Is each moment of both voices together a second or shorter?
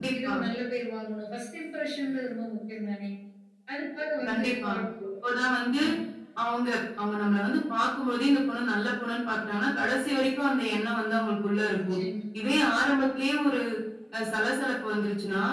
Yes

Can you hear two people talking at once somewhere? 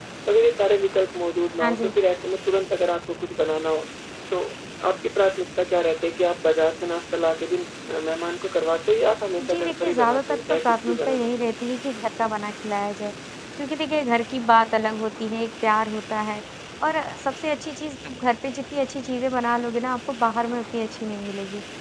Yes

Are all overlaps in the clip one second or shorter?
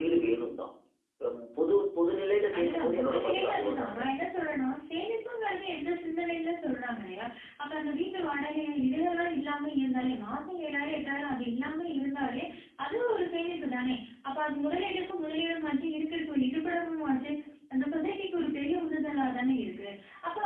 No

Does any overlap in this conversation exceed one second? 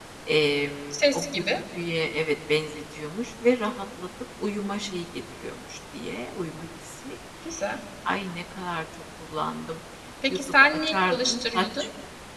Yes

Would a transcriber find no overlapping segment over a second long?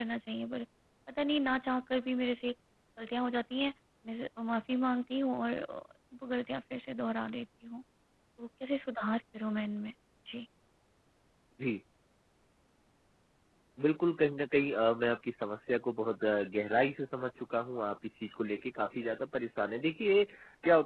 Yes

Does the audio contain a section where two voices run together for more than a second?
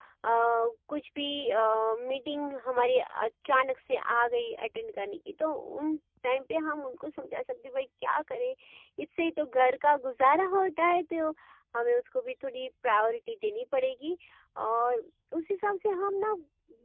No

